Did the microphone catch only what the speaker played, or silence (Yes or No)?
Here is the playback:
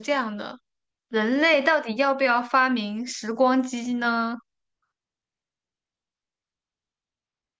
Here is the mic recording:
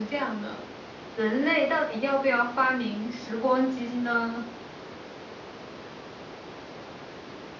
Yes